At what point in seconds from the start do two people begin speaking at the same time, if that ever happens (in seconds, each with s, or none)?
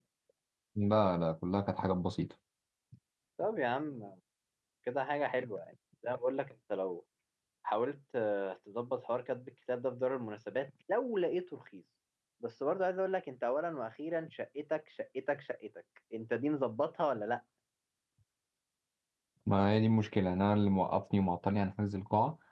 none